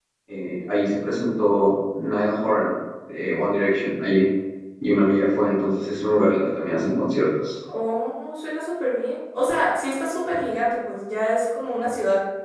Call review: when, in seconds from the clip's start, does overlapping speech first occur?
none

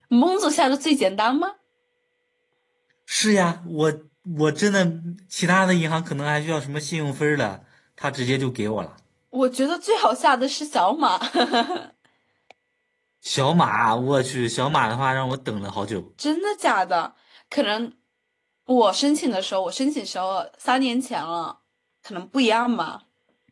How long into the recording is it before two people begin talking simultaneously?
none

